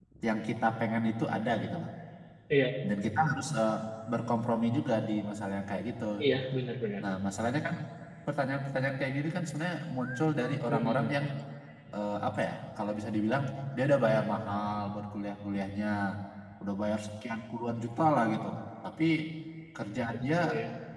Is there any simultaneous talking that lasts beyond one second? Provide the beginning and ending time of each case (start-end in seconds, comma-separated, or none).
none